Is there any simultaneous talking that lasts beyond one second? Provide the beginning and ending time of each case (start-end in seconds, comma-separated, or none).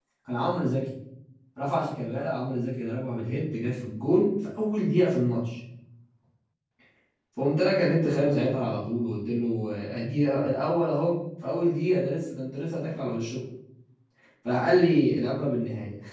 none